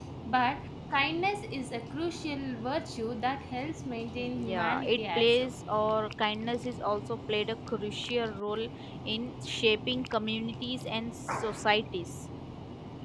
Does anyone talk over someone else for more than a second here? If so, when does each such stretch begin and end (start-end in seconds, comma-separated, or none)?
4.2-5.5